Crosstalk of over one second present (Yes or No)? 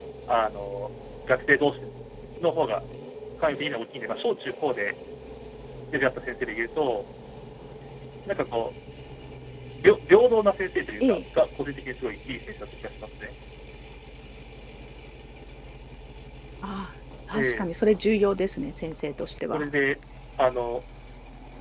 No